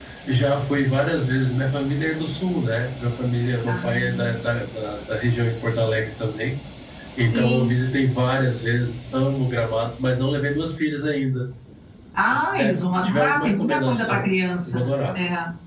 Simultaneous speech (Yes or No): Yes